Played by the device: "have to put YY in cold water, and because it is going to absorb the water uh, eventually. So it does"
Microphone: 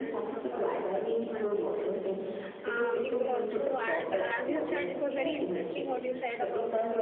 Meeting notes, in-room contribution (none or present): present